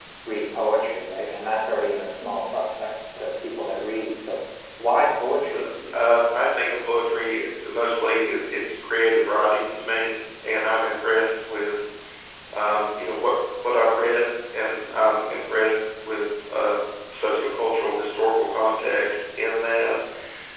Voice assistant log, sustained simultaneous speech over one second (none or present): none